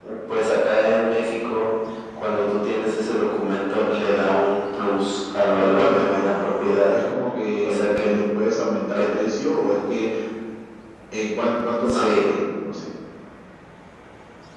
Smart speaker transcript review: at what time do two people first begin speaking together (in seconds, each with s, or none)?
5.6 s